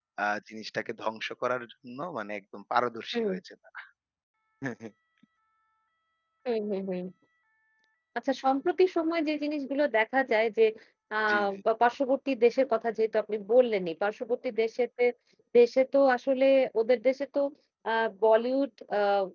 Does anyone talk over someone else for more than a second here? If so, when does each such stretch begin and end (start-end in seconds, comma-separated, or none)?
none